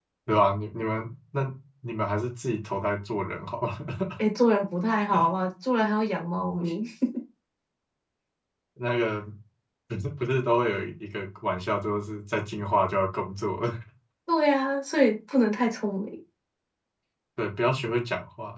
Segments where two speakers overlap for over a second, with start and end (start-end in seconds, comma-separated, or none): none